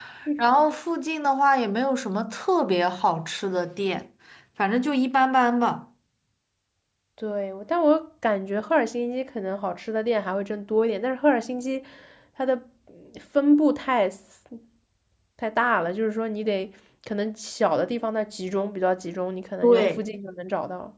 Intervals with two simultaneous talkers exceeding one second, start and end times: none

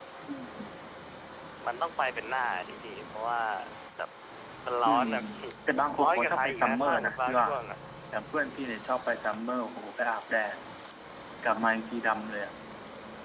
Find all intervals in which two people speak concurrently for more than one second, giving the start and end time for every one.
6.0-7.5

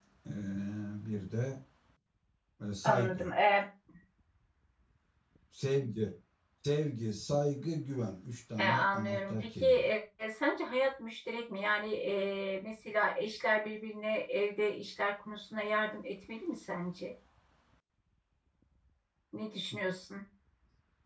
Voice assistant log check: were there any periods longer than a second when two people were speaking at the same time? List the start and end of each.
8.6-9.9

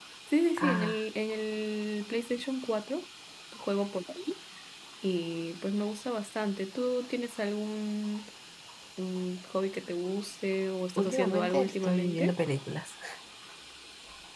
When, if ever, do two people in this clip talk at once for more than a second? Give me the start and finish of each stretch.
11.0-12.3

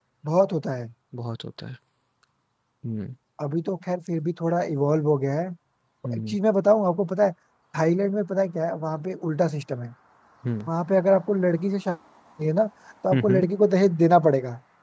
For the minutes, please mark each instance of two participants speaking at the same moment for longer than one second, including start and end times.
none

